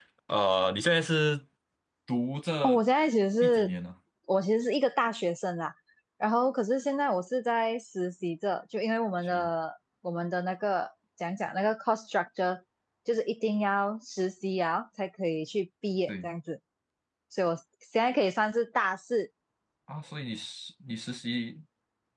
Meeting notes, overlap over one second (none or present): none